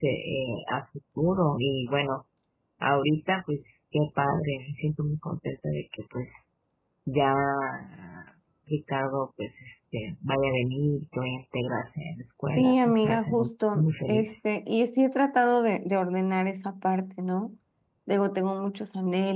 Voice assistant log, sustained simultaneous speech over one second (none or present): present